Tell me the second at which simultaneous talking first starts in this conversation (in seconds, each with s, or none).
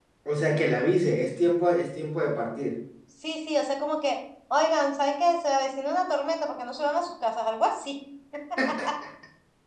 none